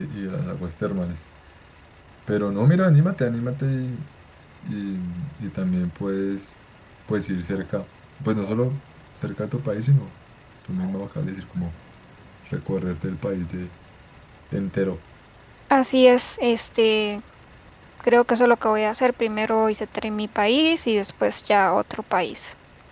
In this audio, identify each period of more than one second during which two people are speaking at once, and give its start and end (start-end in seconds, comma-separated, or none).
none